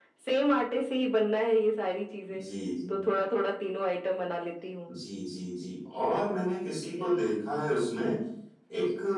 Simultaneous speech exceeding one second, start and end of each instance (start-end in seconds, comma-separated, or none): none